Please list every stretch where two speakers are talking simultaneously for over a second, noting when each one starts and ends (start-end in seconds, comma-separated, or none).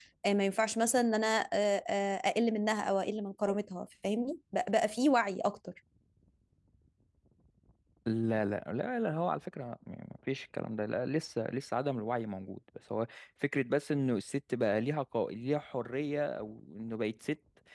none